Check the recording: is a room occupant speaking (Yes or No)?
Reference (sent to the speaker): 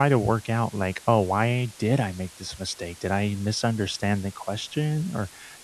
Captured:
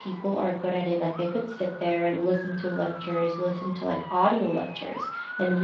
Yes